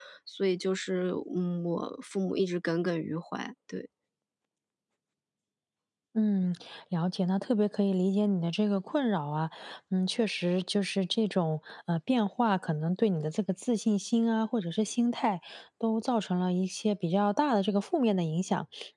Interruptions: none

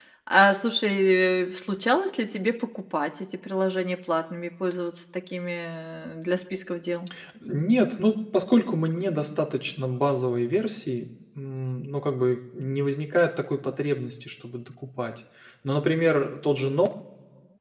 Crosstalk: none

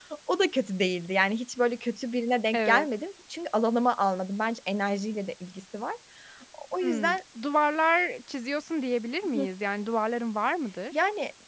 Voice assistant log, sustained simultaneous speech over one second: none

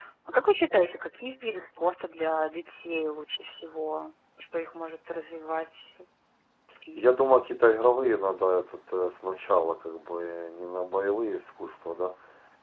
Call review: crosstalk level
none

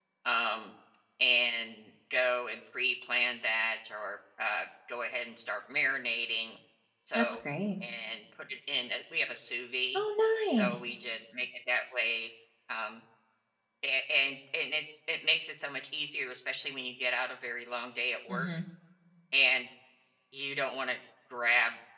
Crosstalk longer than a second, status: none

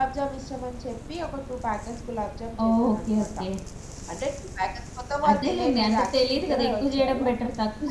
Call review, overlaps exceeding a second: present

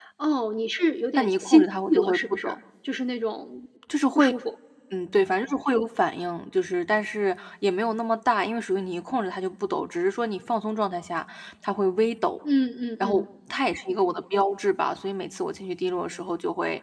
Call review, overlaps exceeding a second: present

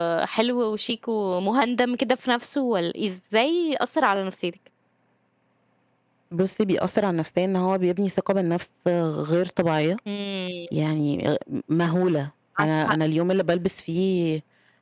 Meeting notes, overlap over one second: none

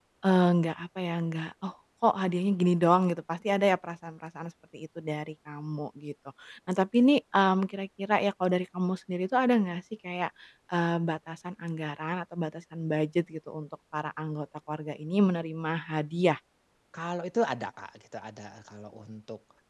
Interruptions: none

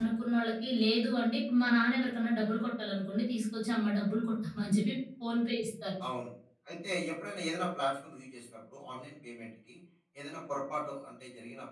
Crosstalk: none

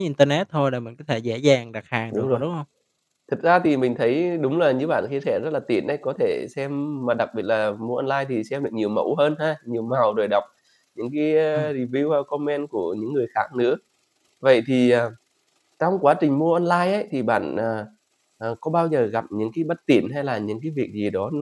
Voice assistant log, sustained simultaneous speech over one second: none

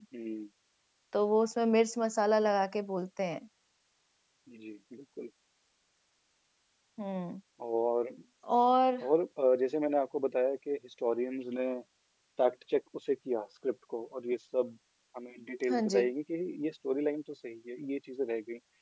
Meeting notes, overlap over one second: none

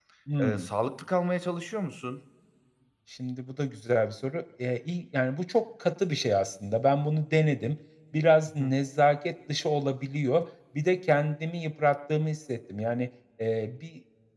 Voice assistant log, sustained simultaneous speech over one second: none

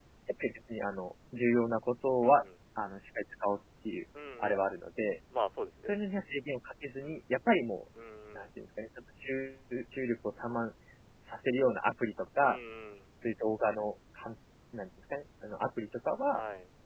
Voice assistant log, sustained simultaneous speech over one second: none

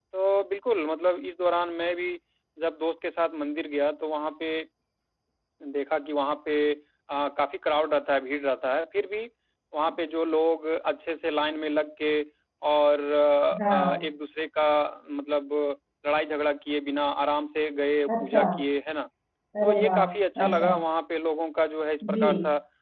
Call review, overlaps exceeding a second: none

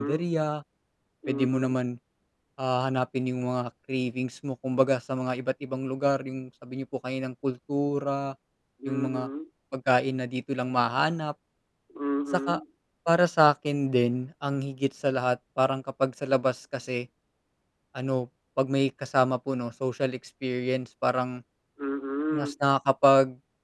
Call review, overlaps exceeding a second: none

